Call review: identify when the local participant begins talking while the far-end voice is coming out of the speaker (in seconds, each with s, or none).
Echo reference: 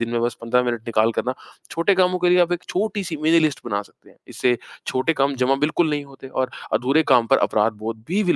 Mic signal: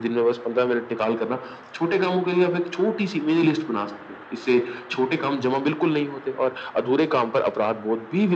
none